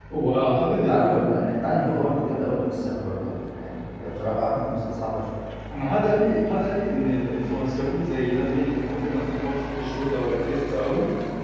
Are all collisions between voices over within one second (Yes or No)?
Yes